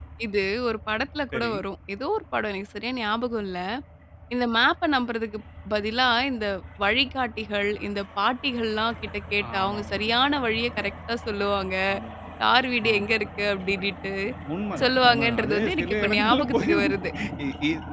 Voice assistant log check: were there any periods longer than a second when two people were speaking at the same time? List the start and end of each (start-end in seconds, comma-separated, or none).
14.8-16.9